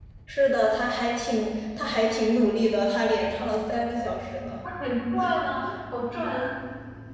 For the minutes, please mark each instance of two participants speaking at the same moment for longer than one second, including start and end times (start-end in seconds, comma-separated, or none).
none